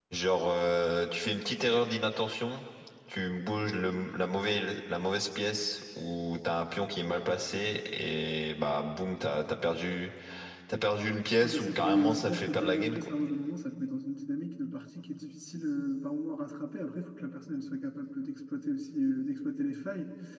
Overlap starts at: 11.4 s

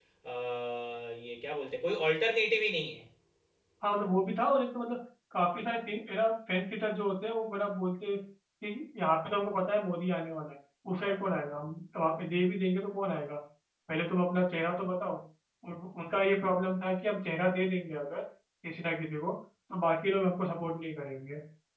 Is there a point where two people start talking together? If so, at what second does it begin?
none

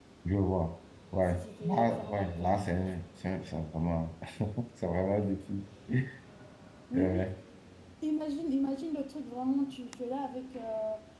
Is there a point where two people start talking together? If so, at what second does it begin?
1.2 s

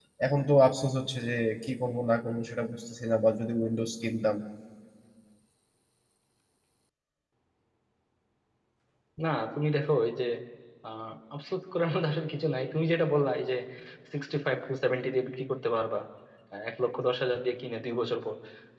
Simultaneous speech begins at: none

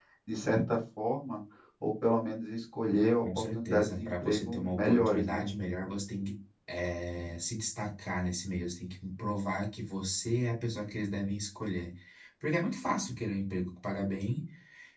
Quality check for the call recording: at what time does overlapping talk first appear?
3.2 s

